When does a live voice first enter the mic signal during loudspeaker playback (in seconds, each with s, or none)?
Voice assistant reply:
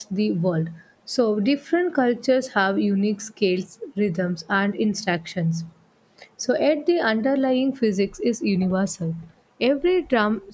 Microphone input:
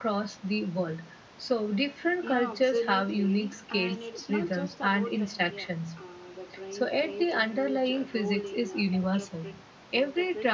2.2 s